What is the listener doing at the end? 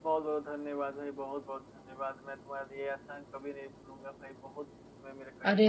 taking over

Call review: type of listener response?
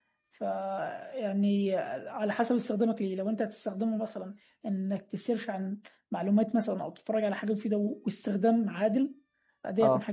listening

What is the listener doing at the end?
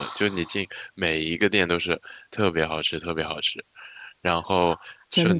listening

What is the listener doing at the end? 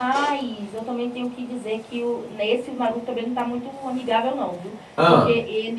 listening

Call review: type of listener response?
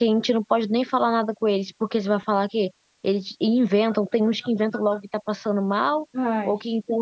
listening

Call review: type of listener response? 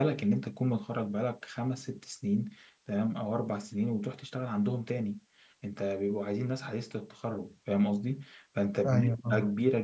listening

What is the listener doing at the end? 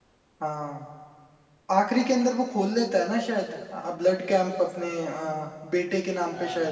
taking over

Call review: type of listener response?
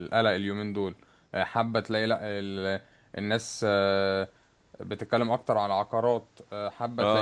taking over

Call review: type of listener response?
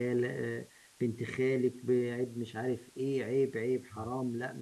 listening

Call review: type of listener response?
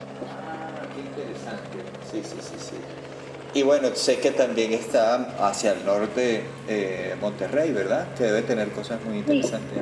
taking over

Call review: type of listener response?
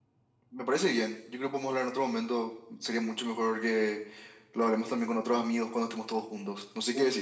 taking over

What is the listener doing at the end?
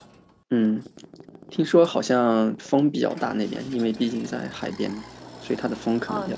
taking over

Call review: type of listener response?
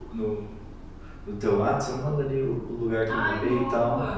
taking over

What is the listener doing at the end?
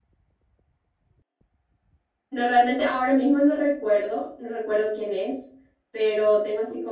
listening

